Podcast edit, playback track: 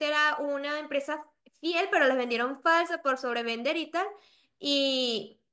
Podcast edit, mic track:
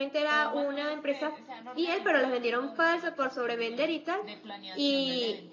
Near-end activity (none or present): present